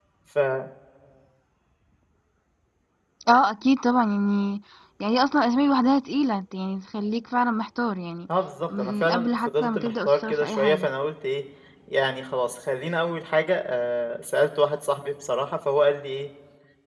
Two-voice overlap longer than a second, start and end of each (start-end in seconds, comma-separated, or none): 8.8-10.9